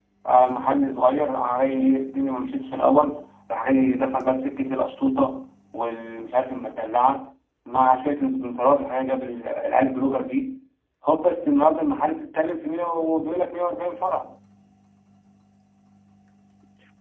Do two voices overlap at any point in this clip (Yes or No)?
No